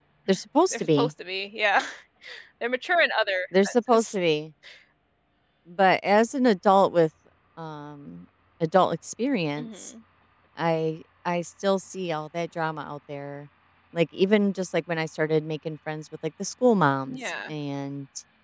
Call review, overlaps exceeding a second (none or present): none